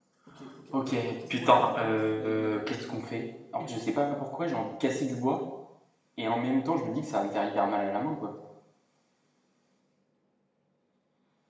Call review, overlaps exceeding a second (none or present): present